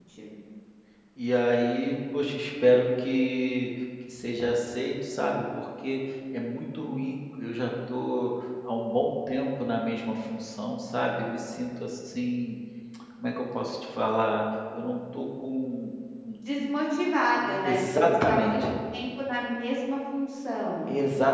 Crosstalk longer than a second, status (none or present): present